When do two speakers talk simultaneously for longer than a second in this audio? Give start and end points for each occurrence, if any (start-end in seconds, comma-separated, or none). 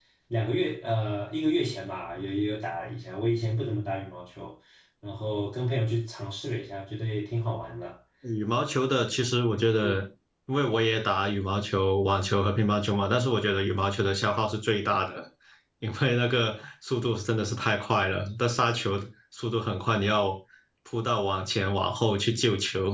none